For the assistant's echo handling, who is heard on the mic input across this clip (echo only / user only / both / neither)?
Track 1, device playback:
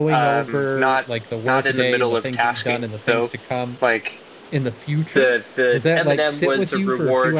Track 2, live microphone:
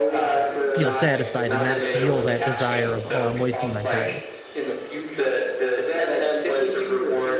both